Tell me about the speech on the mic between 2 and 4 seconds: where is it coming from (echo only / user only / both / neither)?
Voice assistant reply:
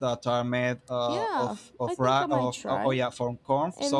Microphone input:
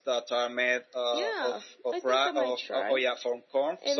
echo only